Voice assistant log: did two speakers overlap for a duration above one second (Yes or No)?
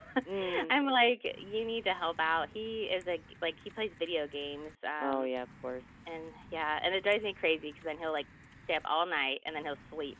No